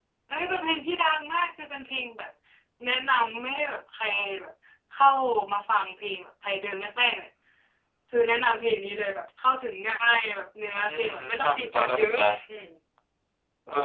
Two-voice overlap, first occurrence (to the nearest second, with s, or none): 11 s